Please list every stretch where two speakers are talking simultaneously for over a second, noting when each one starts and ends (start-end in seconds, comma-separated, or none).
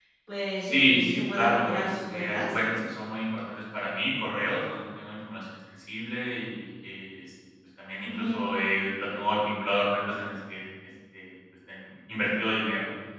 0.6-2.6